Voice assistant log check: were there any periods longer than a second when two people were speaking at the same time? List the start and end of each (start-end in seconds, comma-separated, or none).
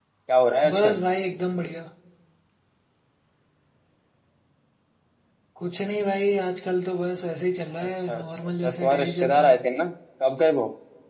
7.8-9.6